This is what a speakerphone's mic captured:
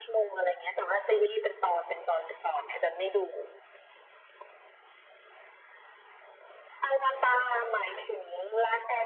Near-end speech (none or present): none